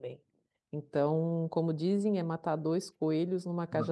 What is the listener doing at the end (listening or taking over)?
taking over